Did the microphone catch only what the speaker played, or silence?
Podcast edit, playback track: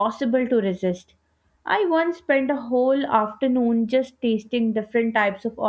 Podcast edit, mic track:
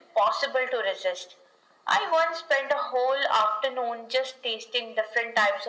Yes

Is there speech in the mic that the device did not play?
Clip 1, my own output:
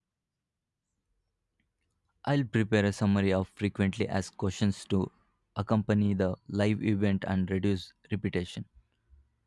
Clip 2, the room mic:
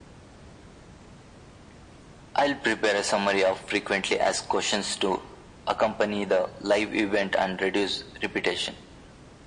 No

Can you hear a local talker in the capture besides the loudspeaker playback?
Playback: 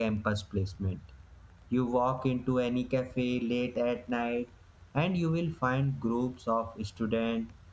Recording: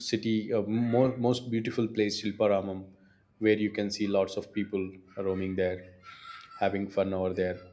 Yes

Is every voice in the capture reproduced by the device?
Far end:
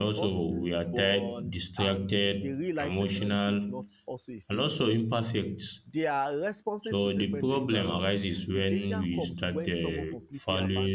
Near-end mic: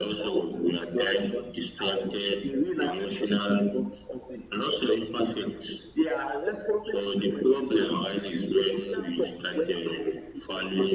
Yes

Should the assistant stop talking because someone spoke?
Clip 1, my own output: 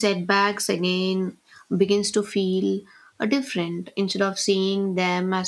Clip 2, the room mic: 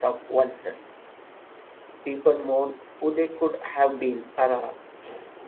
Yes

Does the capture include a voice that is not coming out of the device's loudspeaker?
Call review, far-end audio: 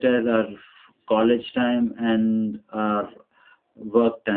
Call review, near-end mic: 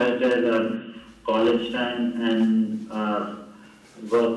No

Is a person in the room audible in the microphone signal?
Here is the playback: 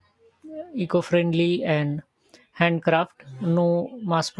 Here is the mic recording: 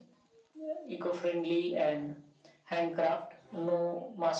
No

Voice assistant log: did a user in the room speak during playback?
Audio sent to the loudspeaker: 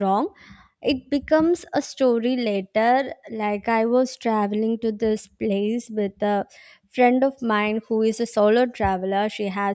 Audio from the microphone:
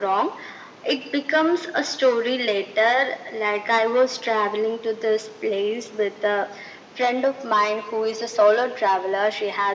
No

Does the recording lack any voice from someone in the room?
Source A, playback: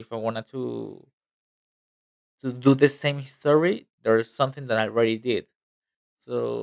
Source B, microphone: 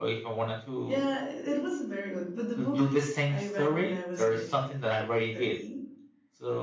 No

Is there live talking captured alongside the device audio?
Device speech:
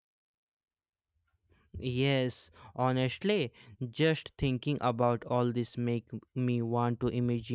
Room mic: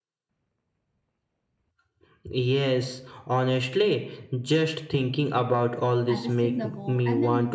Yes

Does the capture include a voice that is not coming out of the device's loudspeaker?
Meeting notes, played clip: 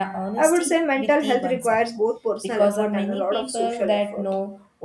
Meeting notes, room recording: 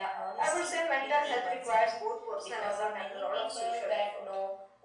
No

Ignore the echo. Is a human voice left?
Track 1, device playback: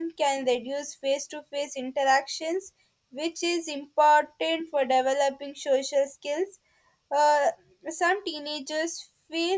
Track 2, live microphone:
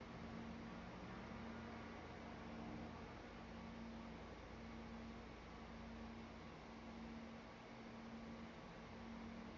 No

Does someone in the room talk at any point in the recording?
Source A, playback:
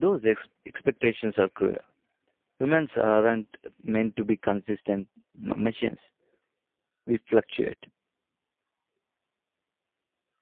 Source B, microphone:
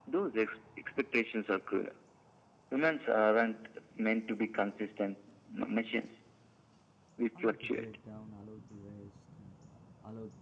Yes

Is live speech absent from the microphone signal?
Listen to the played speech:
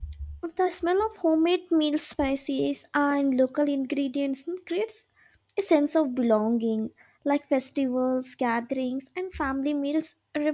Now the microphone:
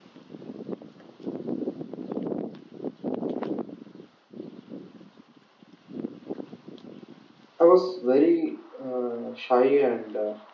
No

